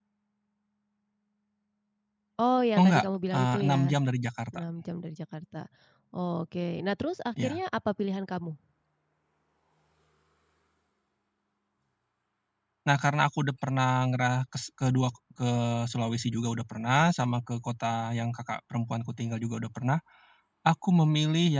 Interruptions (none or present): present